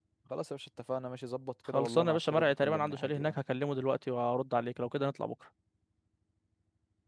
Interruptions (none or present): present